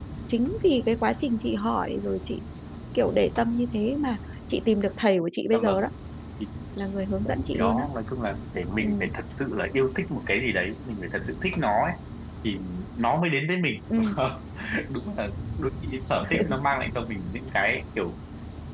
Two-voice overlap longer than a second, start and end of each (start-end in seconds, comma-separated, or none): none